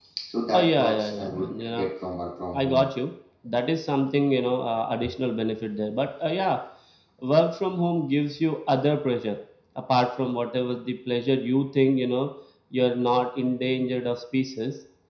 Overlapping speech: Yes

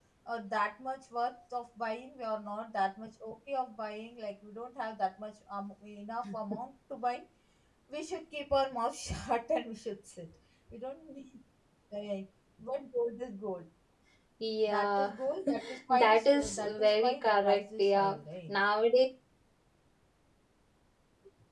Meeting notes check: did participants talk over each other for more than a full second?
Yes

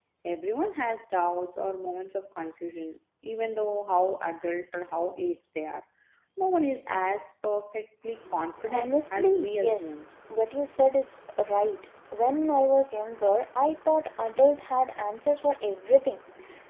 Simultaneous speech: Yes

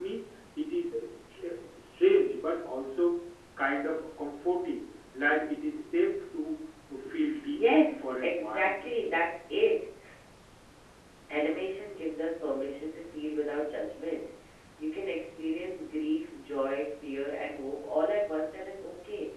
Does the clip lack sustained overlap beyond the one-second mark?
No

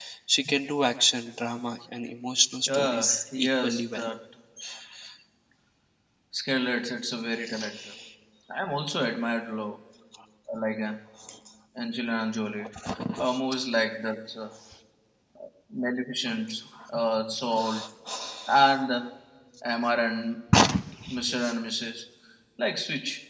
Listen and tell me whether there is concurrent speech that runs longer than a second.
Yes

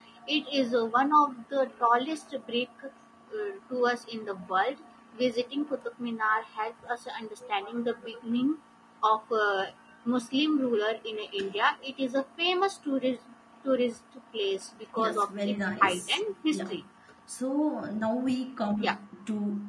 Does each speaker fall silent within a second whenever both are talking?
No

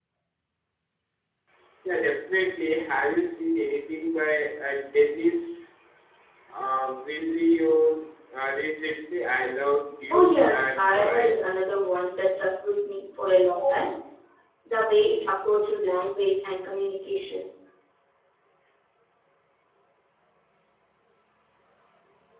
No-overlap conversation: No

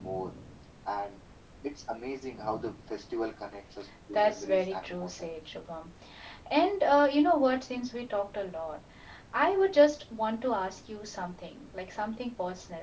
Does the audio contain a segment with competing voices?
Yes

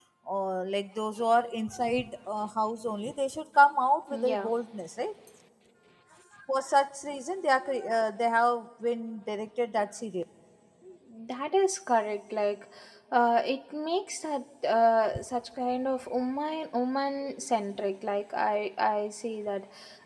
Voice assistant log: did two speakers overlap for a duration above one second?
No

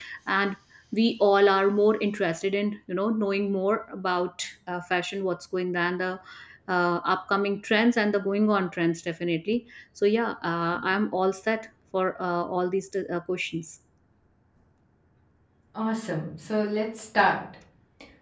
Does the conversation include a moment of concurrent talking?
No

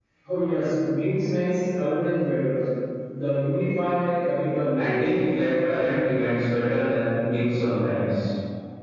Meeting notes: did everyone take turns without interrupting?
No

